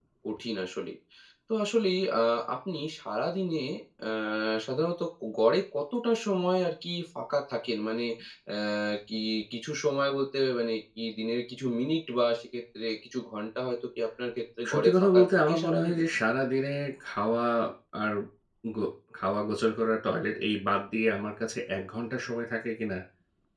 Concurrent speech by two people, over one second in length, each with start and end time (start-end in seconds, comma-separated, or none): 14.7-16.0